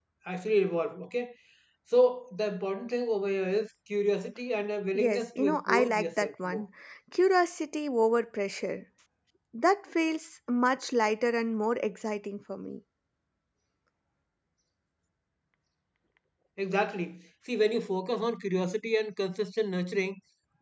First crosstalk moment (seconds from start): 5.0 s

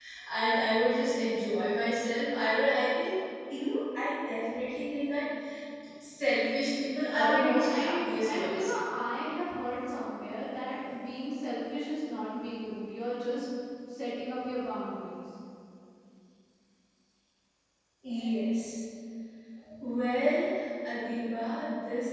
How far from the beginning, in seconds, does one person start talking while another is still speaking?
7.0 s

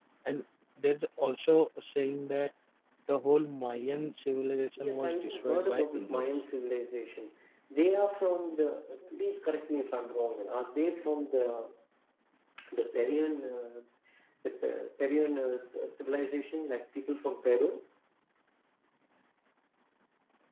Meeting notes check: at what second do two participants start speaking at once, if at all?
4.8 s

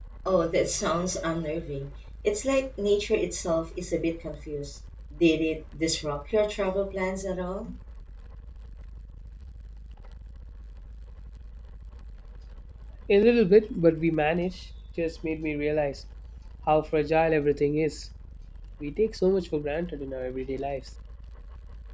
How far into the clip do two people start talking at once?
none

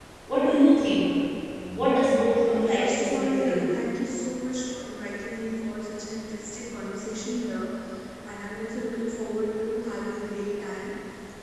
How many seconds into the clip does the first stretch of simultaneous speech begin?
2.4 s

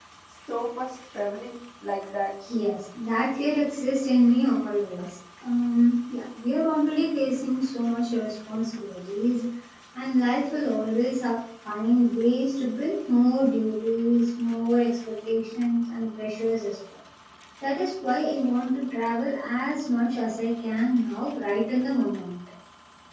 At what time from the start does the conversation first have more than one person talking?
none

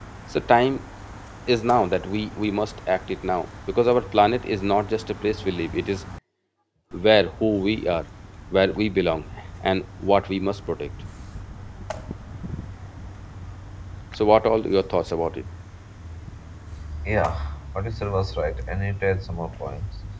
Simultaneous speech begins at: none

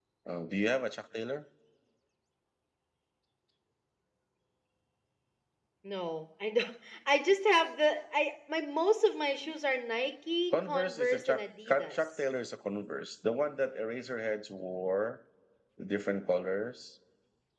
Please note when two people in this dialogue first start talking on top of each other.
10.5 s

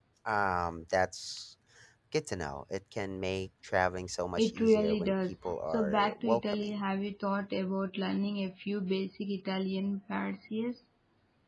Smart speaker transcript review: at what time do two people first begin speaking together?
4.4 s

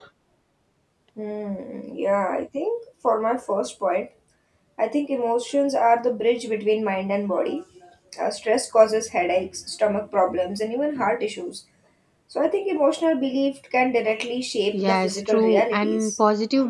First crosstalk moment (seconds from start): 14.7 s

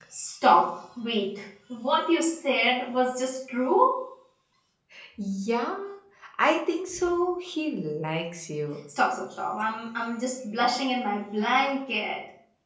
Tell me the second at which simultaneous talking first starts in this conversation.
none

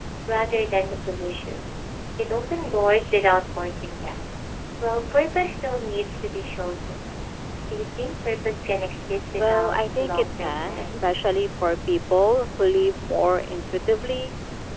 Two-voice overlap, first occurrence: 9.4 s

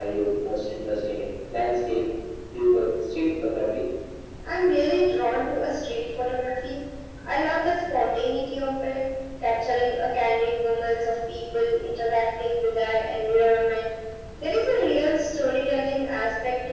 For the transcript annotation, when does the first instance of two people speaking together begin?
none

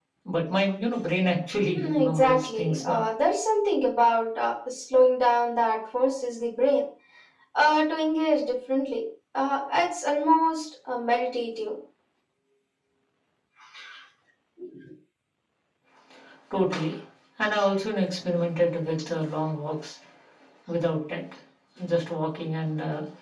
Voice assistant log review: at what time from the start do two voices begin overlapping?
1.7 s

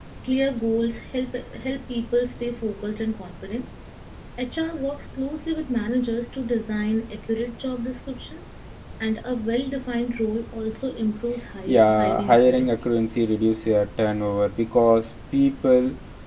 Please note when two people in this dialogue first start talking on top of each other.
11.7 s

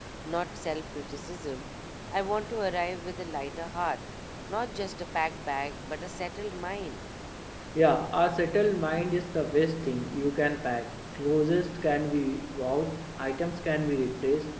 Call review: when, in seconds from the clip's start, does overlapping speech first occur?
none

